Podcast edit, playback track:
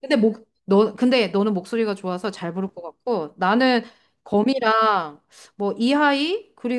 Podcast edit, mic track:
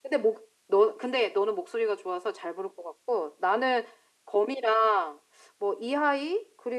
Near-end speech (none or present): none